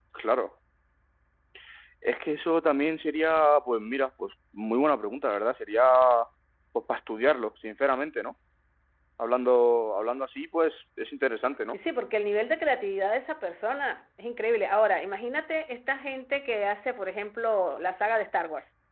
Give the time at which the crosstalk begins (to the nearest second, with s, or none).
none